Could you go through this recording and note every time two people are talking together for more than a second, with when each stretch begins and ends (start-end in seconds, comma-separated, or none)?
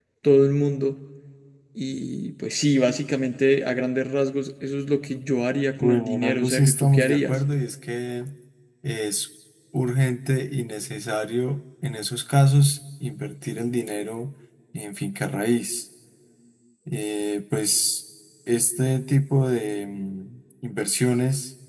5.8-7.4